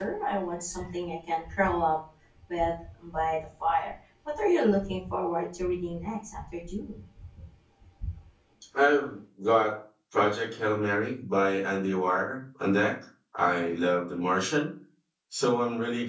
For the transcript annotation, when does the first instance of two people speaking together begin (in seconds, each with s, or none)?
none